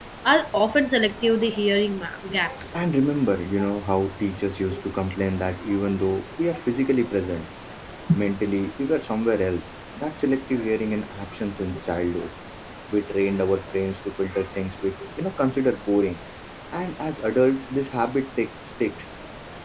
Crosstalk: none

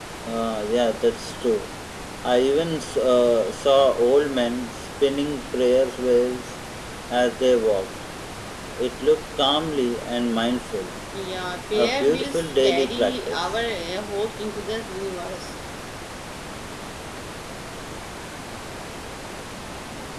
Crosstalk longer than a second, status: present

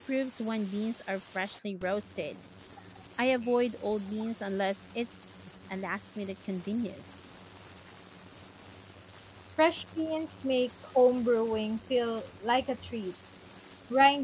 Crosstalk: none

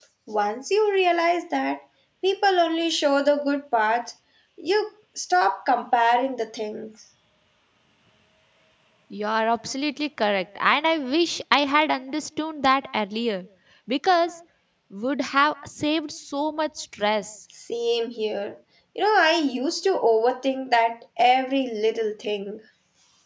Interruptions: none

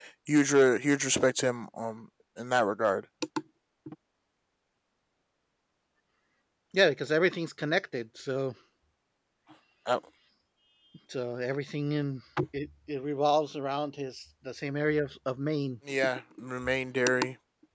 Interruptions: none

